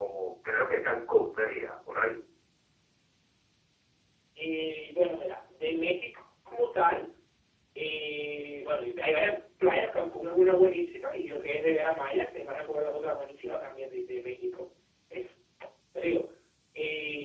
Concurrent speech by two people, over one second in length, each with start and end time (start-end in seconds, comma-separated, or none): none